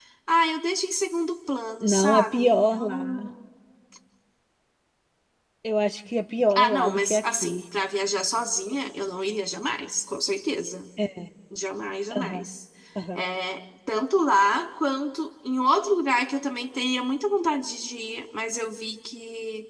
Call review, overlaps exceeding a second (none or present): present